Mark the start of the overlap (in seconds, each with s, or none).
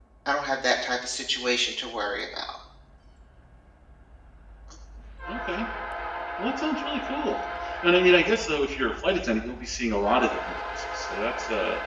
none